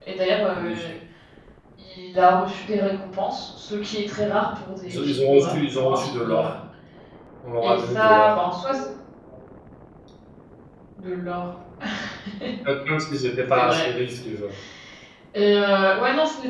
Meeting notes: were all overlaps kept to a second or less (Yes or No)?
No